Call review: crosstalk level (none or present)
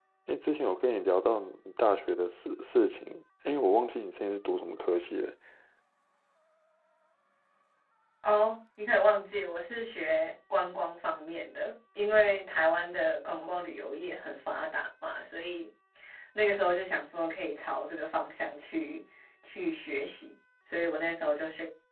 none